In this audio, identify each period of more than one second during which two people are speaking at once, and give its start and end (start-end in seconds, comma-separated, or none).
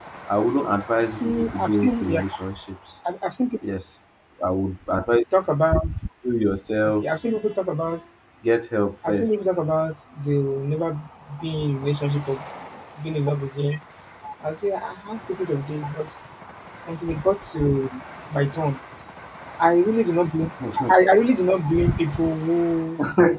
1.0-2.2